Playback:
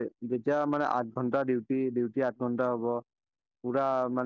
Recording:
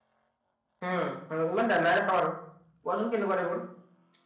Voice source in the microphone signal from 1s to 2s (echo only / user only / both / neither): user only